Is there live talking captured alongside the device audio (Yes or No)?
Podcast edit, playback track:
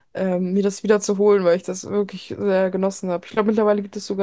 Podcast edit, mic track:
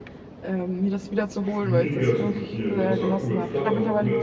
Yes